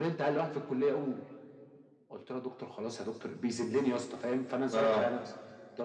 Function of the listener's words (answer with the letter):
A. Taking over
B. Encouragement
B